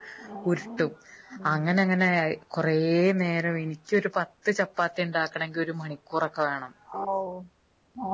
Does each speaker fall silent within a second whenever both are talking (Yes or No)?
Yes